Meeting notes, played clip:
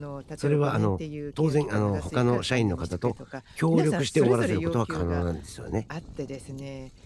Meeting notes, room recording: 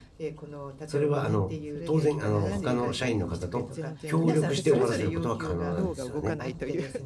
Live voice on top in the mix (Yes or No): No